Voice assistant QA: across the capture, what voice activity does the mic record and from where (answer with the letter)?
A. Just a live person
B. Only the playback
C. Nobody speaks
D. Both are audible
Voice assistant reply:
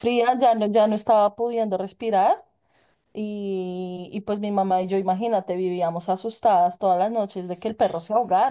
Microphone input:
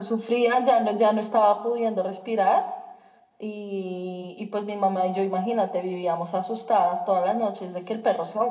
B